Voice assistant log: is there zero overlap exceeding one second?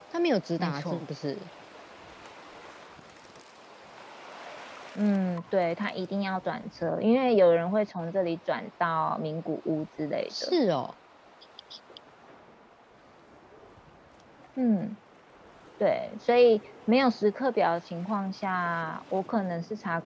Yes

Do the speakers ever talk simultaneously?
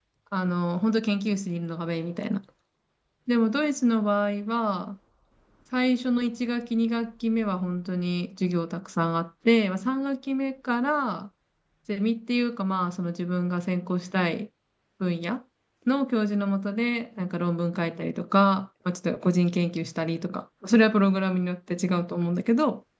No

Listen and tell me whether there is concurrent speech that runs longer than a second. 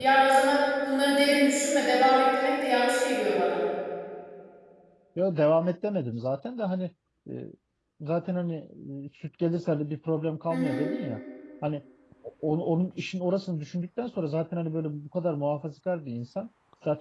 No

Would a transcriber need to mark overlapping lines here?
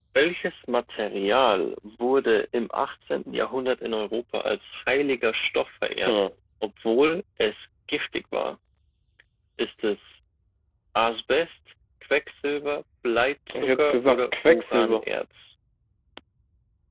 Yes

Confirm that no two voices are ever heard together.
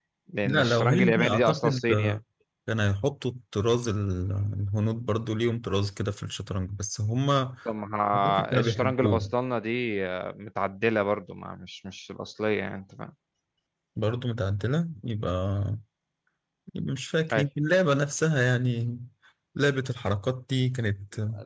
No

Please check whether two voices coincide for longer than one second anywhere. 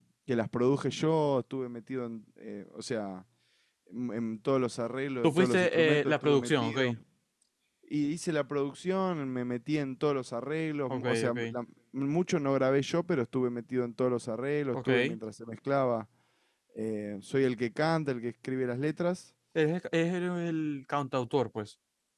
Yes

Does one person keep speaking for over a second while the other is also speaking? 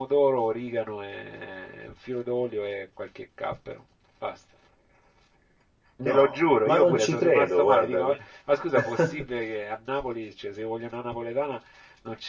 Yes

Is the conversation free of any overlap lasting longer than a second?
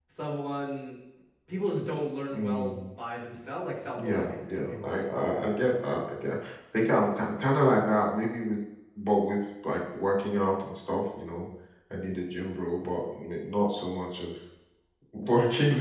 No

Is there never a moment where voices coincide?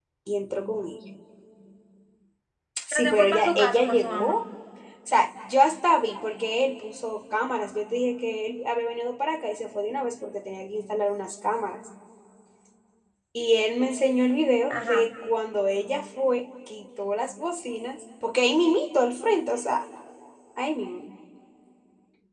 No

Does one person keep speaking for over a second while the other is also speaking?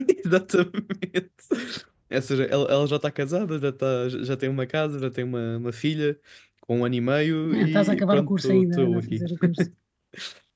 Yes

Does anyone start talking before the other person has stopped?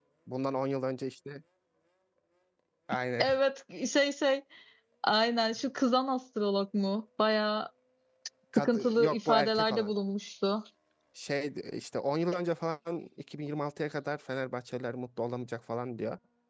Yes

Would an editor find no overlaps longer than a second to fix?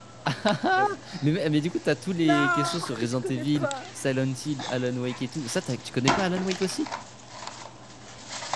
No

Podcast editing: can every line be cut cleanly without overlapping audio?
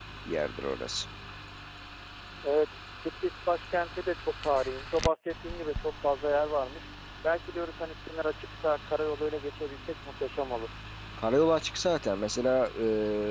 Yes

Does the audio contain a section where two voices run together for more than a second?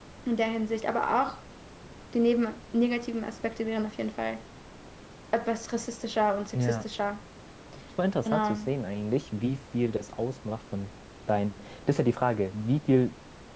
No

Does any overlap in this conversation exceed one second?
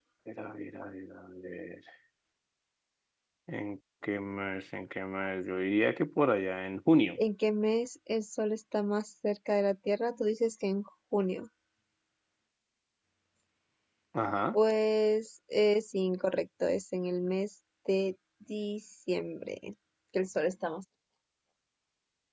No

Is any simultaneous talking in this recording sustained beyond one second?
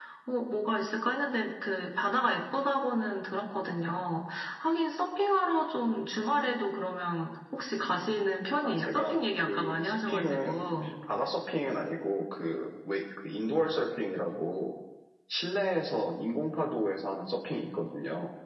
Yes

